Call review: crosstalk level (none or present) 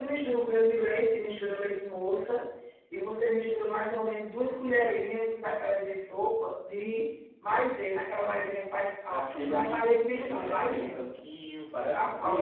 present